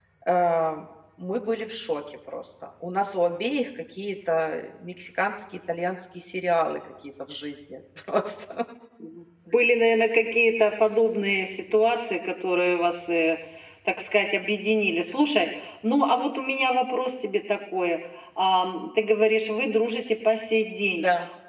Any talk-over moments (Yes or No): No